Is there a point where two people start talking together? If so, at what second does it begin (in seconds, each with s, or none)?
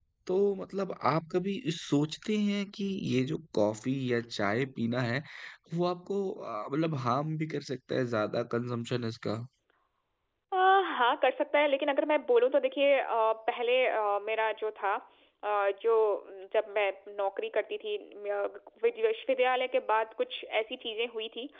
none